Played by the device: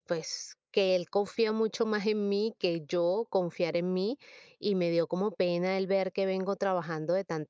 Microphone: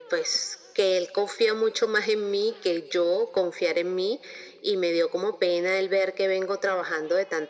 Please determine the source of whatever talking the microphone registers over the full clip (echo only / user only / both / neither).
echo only